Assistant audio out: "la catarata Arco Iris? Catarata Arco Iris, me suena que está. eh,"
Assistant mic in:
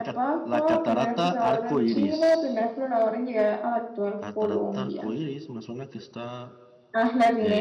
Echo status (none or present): present